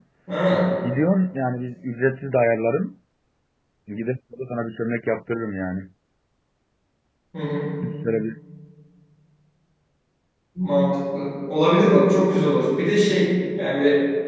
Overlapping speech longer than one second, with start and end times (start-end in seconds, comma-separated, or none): none